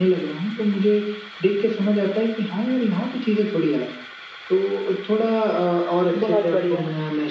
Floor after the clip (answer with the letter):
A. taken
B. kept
B